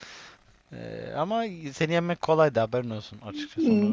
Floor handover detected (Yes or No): Yes